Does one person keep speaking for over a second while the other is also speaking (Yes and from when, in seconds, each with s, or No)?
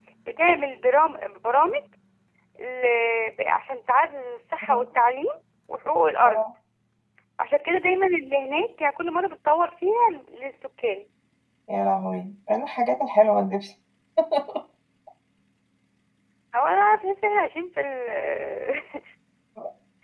No